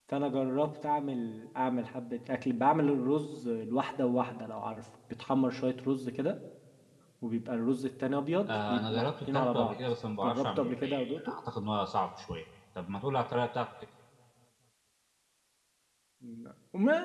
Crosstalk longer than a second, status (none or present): present